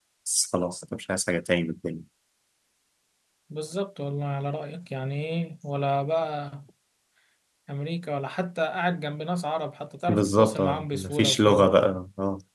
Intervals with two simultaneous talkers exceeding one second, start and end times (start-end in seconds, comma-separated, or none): 10.1-11.7